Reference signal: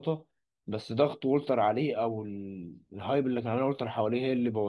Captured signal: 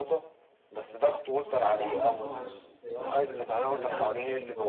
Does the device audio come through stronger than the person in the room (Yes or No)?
Yes